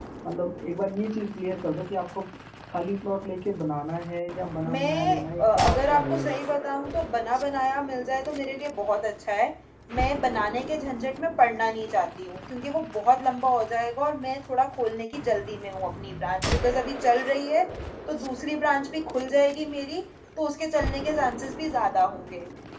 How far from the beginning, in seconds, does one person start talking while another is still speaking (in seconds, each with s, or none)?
4.6 s